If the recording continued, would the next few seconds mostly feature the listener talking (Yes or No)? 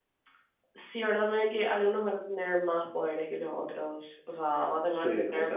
Yes